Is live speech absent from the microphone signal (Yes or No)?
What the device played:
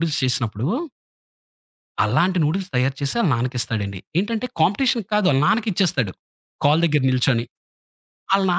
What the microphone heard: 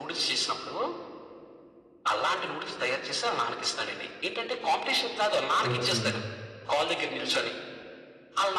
No